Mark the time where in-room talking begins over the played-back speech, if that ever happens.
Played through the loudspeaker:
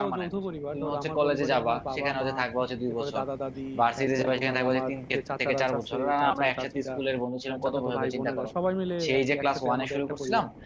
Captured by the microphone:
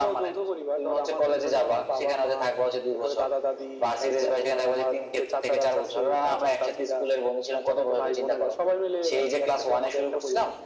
none

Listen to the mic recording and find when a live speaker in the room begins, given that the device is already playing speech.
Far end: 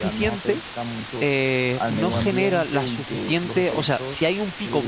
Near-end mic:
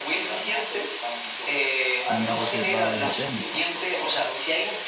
2 s

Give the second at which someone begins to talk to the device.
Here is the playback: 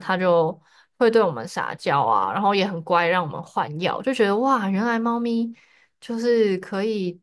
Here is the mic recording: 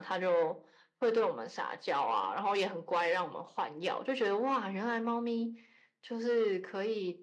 none

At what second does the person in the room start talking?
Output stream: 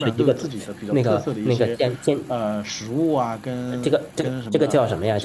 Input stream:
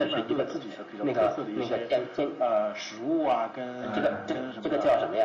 4 s

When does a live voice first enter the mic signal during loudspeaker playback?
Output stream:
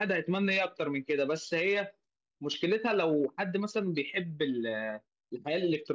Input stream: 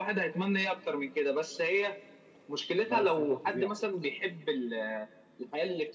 3 s

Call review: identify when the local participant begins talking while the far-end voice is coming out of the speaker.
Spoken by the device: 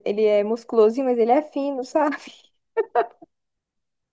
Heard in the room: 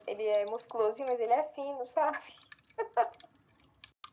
none

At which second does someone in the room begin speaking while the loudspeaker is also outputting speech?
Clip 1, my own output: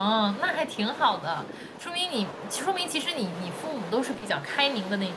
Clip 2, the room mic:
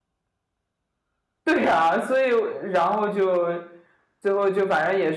1 s

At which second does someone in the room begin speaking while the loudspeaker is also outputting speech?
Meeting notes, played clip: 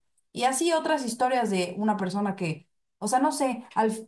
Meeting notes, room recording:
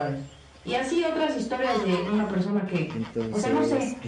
3 s

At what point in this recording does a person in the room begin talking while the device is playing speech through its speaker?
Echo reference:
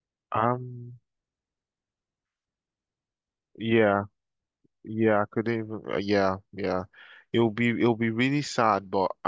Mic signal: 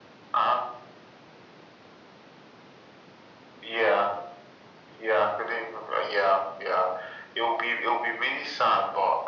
none

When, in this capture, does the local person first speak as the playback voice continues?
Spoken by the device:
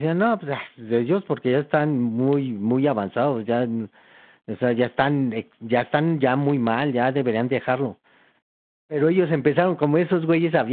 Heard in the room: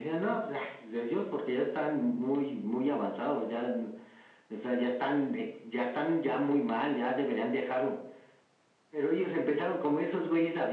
none

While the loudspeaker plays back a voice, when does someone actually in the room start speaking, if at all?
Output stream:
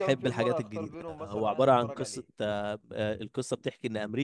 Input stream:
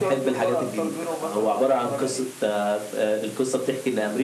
none

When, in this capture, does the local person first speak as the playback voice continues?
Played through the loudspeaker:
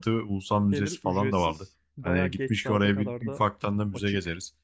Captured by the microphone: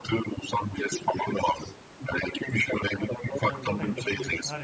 3 s

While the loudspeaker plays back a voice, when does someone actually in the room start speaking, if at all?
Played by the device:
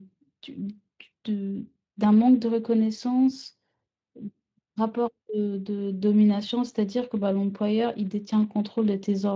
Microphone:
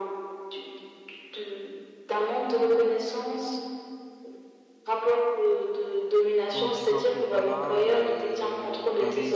7 s

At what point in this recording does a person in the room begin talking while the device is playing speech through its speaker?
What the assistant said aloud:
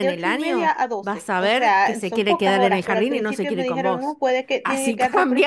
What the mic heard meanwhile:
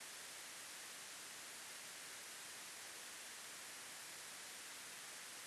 none

